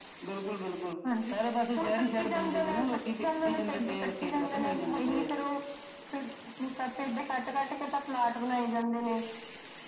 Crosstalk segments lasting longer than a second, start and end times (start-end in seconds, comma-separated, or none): 1.8-3.2, 3.6-5.3